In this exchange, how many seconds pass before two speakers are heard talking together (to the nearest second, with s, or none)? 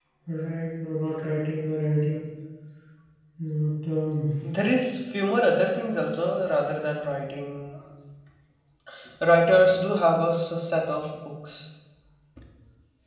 none